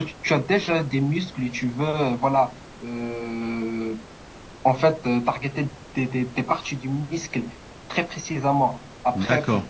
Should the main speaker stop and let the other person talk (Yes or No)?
No